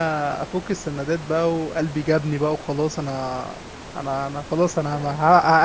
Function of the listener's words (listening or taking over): listening